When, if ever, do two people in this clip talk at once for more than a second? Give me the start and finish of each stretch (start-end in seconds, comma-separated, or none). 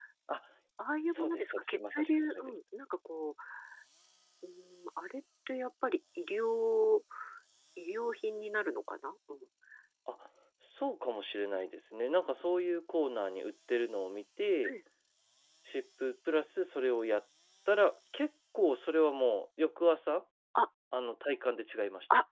1.1-2.5